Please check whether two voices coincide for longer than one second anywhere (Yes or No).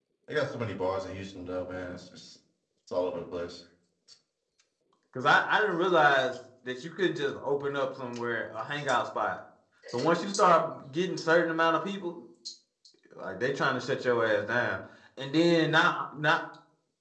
No